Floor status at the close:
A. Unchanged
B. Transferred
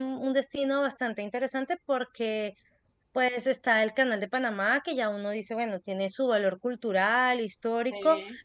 A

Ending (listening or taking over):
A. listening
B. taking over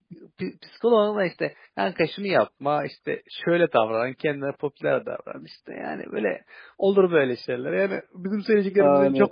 A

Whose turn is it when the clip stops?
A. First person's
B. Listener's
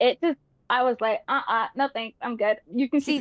B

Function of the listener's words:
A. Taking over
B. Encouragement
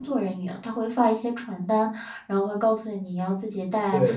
B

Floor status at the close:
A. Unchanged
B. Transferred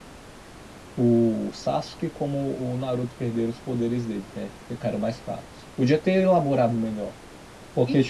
B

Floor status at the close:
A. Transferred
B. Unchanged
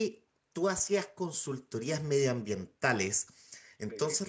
B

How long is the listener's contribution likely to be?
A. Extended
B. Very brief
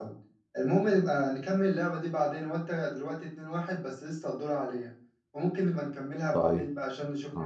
A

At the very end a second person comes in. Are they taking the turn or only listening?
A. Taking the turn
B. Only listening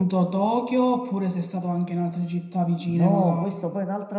A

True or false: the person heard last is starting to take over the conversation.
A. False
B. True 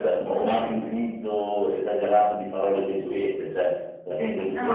A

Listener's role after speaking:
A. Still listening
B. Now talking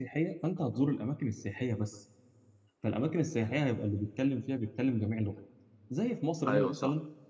A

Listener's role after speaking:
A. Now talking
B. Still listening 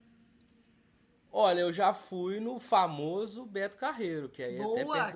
A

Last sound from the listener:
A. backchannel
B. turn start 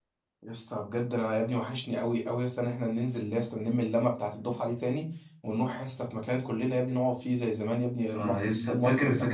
B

